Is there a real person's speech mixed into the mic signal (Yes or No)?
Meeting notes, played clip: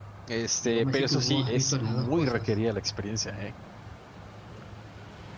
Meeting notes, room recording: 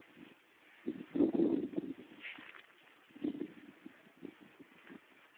No